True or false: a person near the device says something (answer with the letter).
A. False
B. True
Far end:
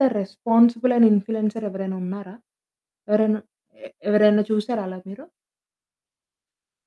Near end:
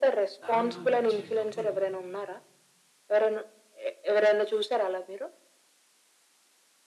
B